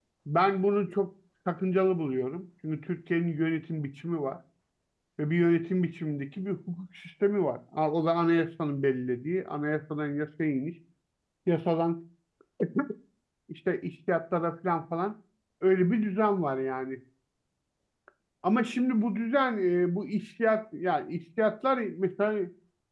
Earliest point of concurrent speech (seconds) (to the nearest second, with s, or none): none